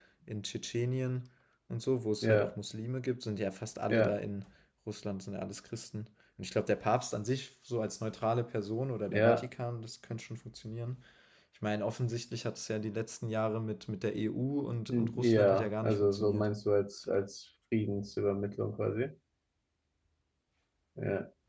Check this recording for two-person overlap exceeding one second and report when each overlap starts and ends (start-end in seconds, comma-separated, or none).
14.9-16.5